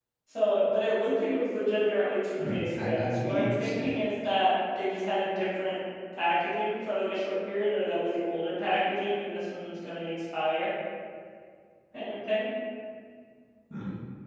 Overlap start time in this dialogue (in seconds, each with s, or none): 2.4 s